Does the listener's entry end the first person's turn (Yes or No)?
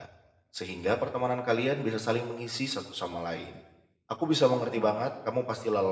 No